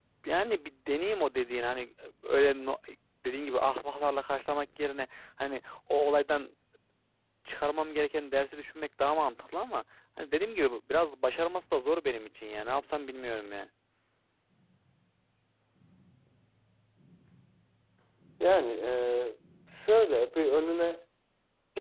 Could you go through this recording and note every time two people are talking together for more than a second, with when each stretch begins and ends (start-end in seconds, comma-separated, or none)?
none